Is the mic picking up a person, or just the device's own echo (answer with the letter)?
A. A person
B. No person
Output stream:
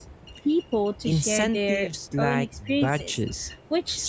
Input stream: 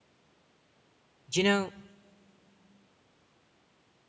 A